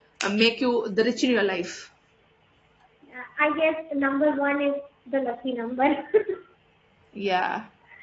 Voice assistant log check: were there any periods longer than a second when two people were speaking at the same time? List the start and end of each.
none

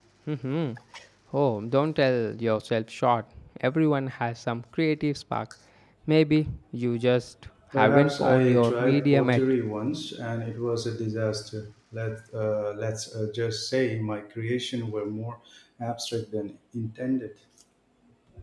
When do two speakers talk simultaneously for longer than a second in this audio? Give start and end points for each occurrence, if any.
7.8-9.4

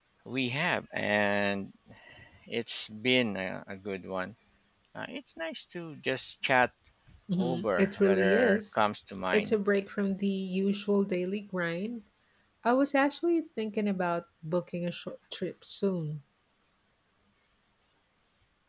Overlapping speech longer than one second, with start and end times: 7.4-8.8

